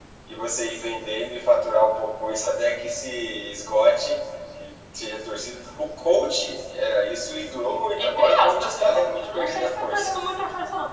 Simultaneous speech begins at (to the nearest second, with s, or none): 8 s